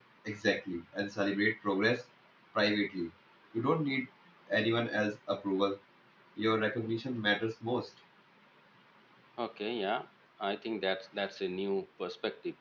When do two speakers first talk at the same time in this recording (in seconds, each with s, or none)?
none